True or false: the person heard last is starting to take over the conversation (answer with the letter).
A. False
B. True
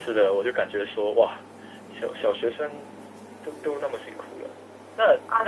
B